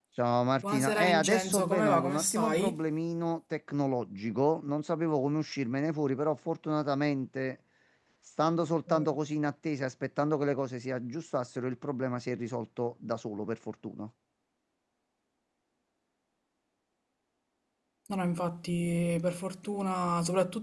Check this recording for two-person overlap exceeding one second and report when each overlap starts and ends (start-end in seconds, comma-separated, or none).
0.7-2.8